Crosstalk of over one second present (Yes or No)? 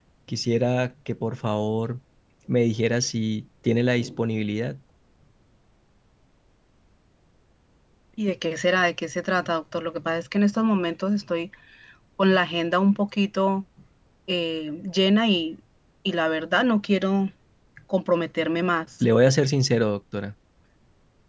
No